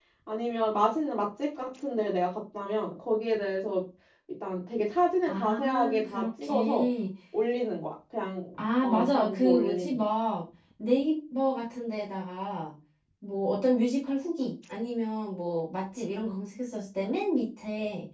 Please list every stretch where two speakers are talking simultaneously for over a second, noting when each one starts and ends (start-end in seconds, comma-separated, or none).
5.3-6.9, 8.8-10.1